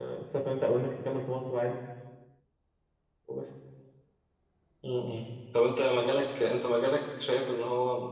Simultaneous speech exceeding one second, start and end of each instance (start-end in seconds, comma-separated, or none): none